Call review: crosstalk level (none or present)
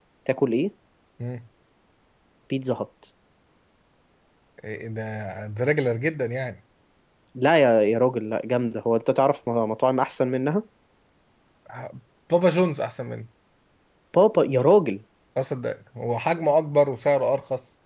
none